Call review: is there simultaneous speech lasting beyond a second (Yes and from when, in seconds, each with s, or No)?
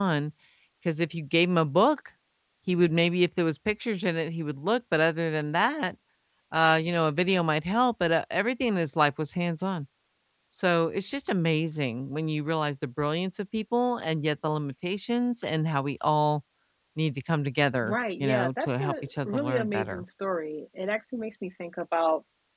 Yes, from 17.8 s